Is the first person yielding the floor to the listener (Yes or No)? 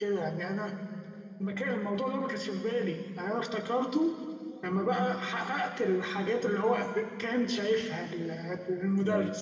Yes